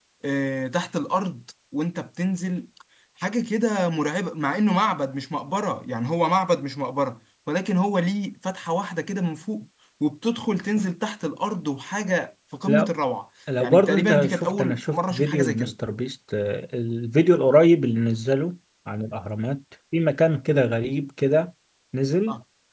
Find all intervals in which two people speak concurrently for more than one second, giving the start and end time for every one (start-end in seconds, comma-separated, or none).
13.6-15.7